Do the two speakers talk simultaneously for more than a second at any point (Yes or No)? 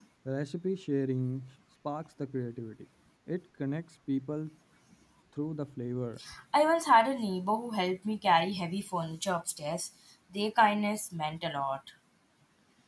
No